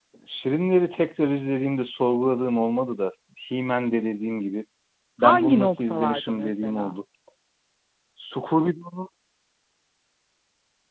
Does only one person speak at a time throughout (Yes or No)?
No